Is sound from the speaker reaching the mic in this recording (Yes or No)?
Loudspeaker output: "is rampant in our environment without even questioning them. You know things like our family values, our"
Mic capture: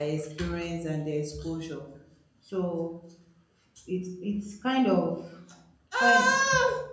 No